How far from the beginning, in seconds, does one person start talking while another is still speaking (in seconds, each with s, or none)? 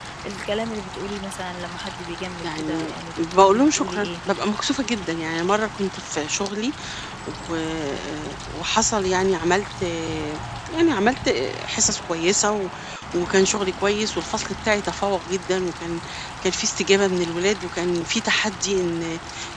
2.4 s